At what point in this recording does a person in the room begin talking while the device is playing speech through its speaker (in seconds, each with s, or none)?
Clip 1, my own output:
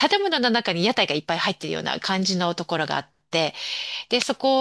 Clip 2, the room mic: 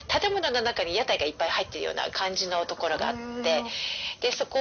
2.6 s